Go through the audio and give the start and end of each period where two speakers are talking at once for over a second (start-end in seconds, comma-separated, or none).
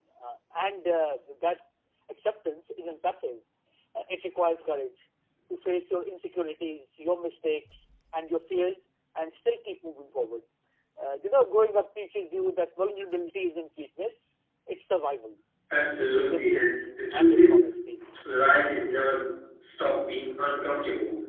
16.0-17.6